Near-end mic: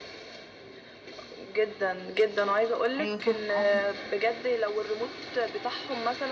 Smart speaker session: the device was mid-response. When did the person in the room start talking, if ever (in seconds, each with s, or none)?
3.0 s